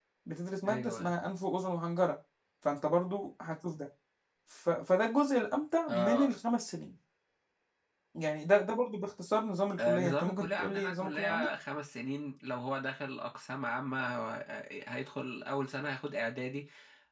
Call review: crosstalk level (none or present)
present